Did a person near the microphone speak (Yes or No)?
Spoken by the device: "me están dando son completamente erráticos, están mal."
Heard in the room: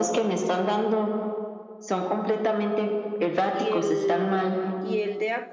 Yes